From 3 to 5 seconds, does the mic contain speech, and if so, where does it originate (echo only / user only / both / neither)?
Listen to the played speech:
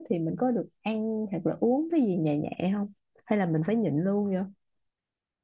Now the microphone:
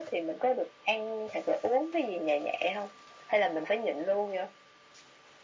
echo only